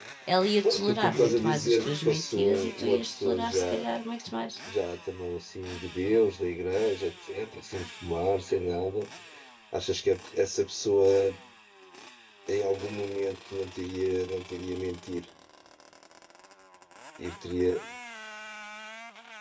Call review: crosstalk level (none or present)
present